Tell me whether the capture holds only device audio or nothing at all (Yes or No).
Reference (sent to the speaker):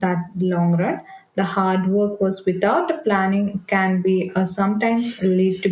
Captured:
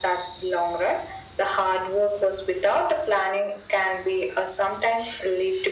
Yes